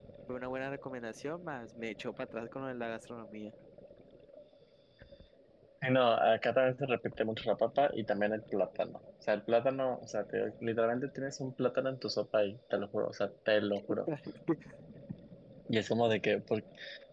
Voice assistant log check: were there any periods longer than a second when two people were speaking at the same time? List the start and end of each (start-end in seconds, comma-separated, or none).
none